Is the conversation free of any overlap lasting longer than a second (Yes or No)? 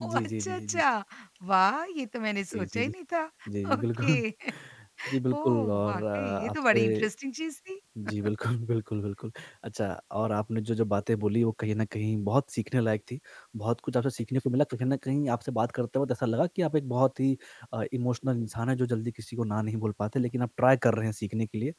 No